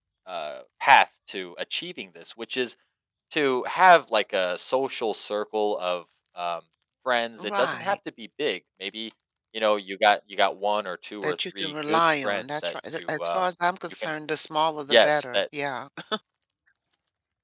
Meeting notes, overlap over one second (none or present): present